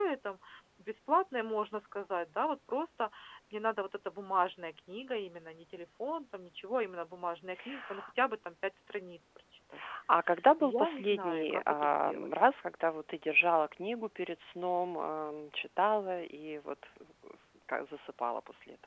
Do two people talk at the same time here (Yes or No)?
Yes